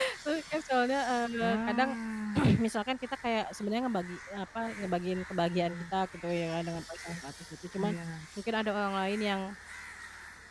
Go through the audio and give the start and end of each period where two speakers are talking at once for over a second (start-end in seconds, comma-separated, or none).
none